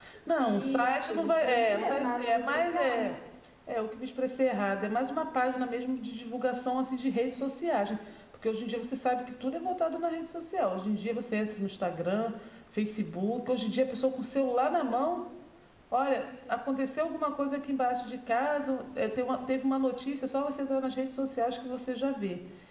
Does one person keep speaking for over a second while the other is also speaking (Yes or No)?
Yes